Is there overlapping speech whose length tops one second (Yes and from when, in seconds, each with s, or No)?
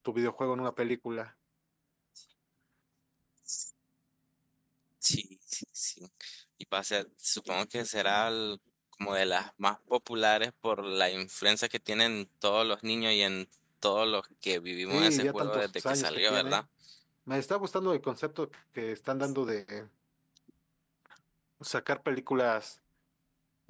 Yes, from 14.9 s